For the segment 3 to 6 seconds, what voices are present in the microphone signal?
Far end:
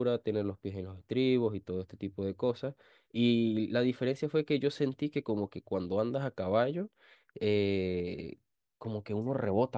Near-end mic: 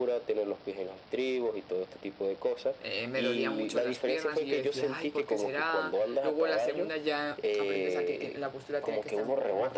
both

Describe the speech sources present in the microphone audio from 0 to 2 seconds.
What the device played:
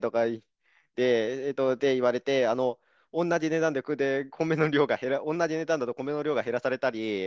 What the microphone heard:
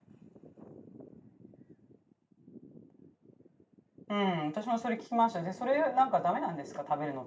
neither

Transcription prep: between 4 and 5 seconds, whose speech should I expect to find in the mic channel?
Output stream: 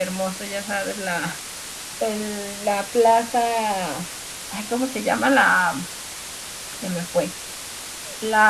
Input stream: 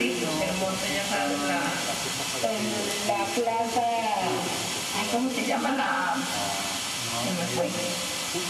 both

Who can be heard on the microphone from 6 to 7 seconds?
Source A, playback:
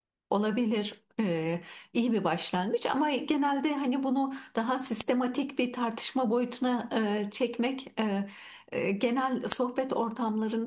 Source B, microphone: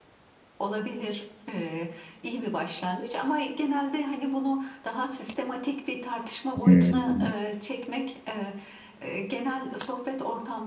both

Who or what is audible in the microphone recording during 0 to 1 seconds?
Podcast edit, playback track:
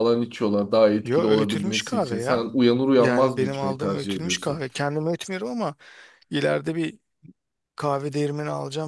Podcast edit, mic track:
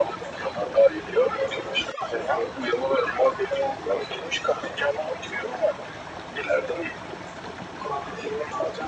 echo only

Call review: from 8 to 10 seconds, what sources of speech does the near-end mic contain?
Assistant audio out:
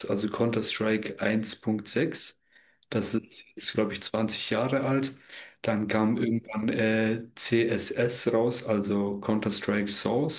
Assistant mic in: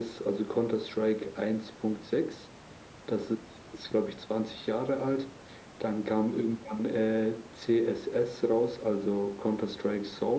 echo only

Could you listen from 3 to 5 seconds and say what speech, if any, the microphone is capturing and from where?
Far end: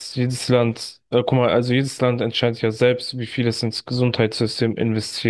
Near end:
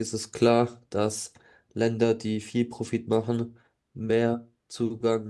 user only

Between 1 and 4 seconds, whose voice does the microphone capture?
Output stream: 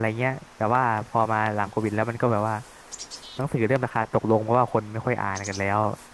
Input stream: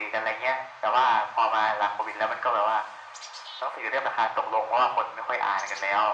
echo only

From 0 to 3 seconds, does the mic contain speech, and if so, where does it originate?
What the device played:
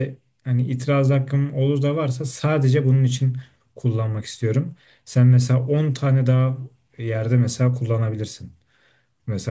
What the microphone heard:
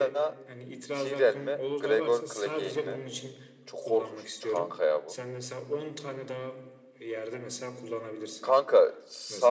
both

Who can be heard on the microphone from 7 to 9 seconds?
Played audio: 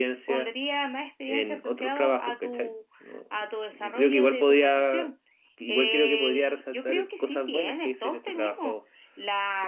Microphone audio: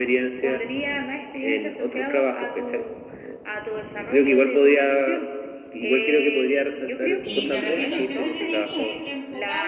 both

